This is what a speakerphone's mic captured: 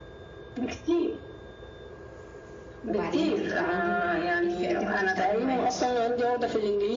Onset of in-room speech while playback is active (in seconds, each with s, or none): 2.8 s